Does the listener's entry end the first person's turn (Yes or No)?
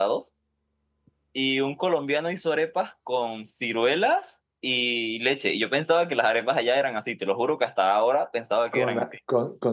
Yes